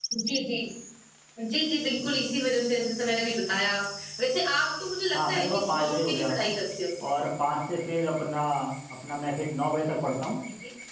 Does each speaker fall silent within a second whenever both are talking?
No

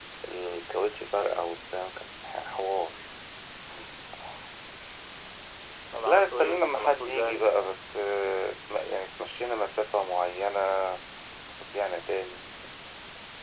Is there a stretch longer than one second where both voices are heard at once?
Yes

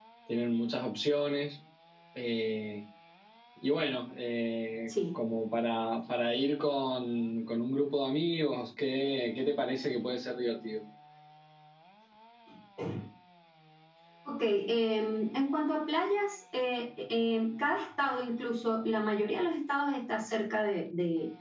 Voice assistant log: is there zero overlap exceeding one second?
Yes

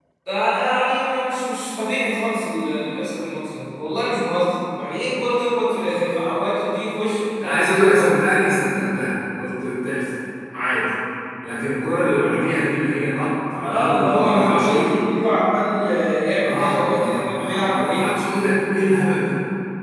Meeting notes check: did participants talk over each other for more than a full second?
Yes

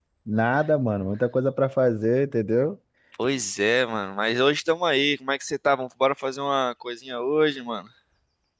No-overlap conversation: Yes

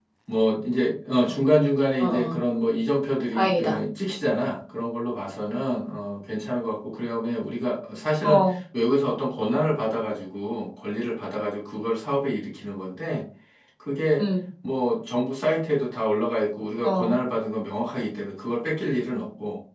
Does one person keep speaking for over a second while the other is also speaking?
No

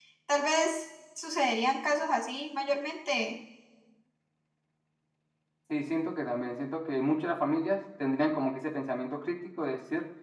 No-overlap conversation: Yes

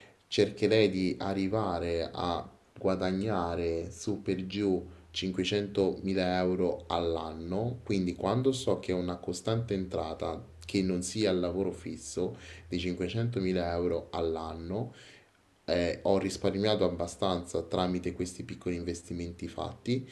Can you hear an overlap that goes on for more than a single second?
No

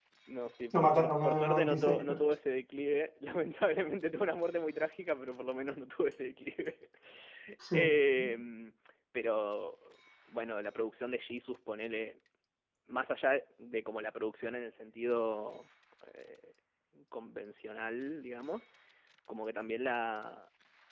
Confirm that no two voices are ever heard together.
No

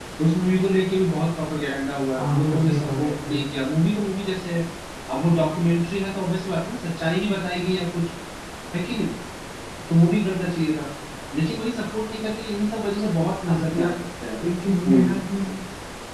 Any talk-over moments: Yes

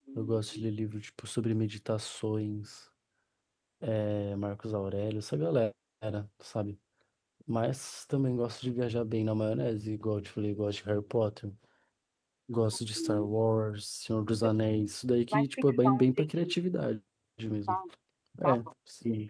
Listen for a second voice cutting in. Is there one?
Yes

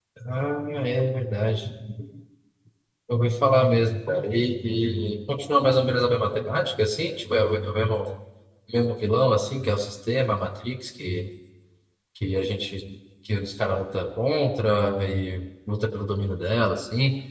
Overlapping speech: No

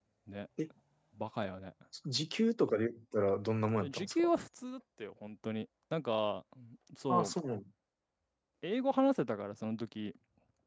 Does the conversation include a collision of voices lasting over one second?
No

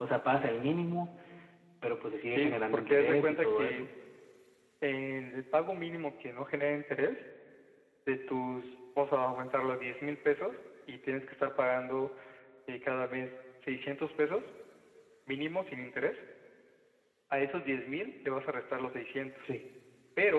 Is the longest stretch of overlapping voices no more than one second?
No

